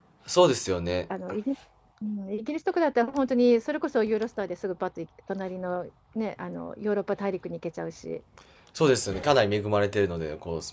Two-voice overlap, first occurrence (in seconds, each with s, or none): none